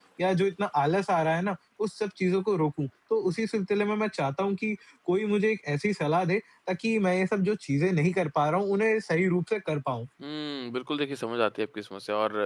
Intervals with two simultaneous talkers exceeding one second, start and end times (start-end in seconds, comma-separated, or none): none